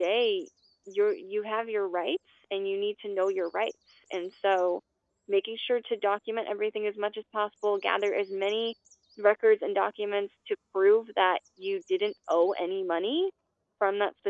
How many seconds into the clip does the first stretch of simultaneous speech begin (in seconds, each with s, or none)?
none